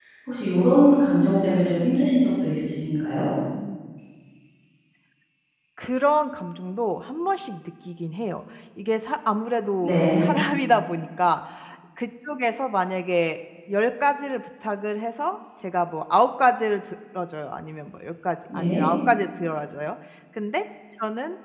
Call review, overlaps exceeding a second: none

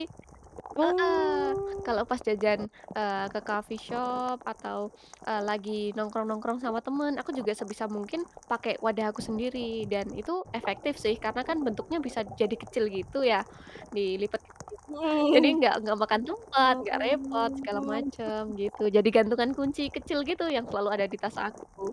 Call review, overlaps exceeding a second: present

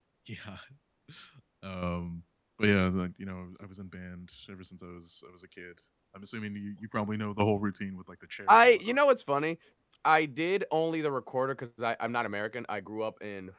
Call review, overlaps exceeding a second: none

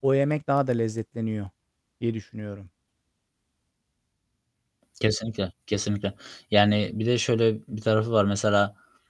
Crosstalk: none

